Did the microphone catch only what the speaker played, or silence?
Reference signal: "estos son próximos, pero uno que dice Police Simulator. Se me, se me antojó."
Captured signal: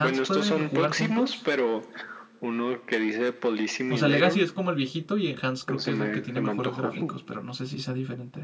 No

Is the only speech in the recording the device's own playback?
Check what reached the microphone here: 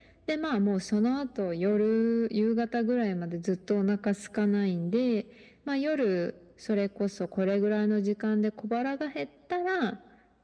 Yes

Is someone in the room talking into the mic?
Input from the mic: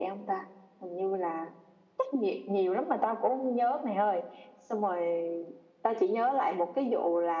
No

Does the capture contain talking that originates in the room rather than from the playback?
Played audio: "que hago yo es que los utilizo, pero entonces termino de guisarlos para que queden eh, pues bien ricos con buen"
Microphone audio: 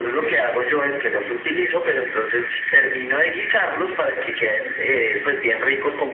No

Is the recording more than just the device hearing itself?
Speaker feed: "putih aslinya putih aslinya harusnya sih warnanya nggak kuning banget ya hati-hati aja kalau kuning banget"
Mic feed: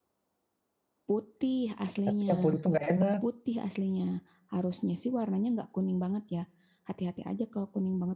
Yes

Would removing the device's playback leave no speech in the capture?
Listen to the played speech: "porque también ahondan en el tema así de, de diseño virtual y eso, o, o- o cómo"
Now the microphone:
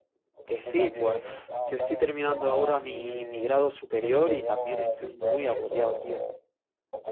No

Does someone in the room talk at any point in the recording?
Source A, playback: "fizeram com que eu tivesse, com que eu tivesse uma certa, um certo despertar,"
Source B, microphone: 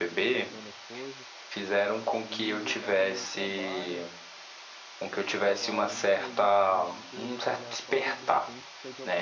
Yes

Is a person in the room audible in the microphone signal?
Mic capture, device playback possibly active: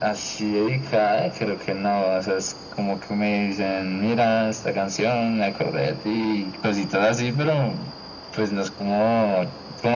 No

